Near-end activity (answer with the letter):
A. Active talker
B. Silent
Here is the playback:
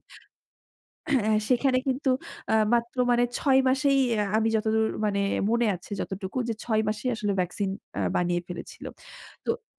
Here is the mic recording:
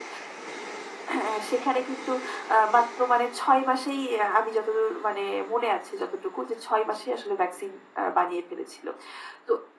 B